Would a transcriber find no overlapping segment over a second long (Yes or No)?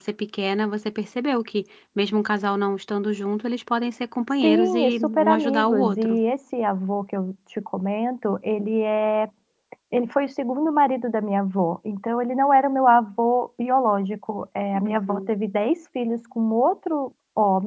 No